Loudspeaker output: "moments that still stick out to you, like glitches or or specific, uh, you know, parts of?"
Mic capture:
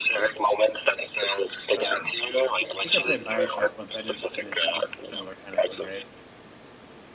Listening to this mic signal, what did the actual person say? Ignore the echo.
Um, think I played Bioshock once, but I didn't finish it. It's a similar kind of thing, right?

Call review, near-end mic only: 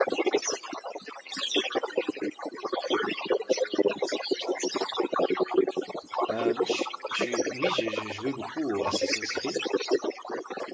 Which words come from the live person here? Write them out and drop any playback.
Euh, moi, je suis... tu- Oui, j'ai j'ai joué beaucoup au Assassin's Creed.

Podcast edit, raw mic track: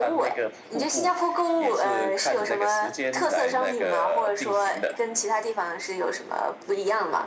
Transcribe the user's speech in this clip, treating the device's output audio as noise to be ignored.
none

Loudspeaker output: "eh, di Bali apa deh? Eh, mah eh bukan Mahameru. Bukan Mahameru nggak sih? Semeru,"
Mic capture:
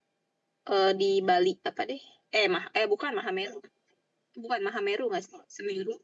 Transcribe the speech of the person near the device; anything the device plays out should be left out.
none

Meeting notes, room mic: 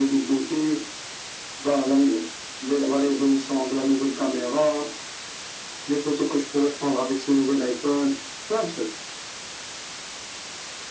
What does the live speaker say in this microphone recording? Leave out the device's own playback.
none

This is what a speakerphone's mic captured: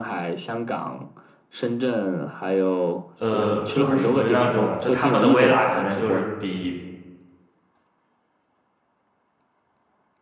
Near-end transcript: 呃，就是属于那种，就他们的微辣可能就是比，

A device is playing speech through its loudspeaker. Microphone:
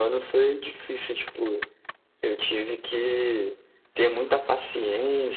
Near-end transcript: none

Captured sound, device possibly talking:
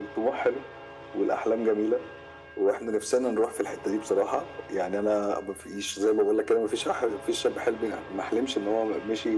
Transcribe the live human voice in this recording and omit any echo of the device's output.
none

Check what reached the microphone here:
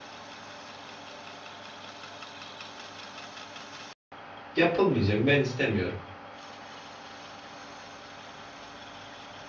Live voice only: Yapılmayacak ben istemiyorum.

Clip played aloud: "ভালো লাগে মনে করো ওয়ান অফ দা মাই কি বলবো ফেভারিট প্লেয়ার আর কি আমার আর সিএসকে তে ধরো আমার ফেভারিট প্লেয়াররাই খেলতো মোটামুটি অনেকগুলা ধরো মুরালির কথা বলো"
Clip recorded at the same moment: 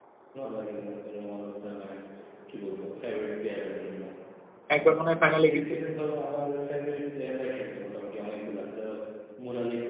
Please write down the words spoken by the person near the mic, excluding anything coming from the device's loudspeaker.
একবার মনে হয় ফাইনালে গিয়েছিল

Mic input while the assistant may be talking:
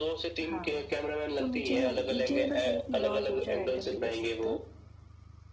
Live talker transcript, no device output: हाँ तो मीठे में मीठे में बस एक नहीं और दो चार आइटम भी कर सकते हैं

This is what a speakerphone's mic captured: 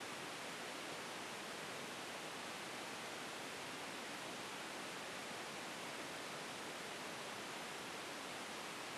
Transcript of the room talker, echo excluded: none

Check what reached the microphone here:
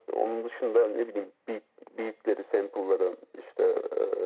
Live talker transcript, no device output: none

